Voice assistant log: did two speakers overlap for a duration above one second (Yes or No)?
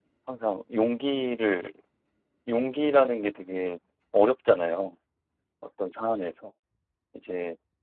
No